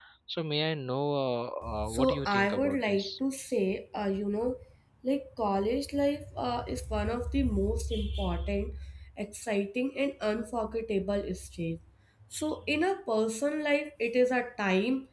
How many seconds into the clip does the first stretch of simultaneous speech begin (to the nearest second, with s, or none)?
2 s